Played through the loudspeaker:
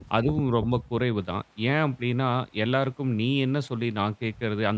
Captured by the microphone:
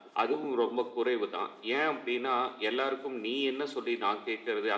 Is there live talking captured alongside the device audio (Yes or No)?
No